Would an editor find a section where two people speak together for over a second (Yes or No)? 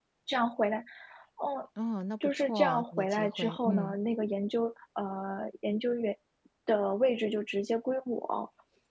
Yes